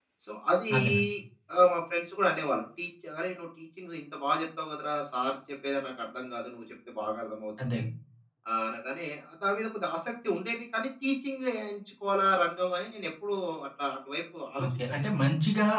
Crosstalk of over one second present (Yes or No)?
No